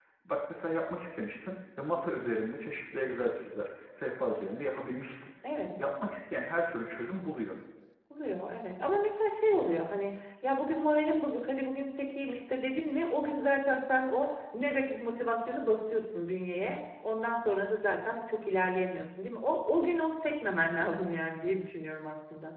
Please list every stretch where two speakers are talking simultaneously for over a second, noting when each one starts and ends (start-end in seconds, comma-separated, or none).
none